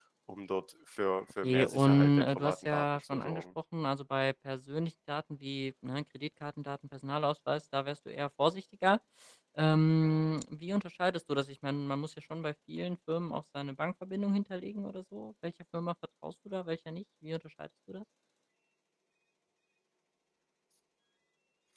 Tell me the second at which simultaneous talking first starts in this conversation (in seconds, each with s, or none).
1.4 s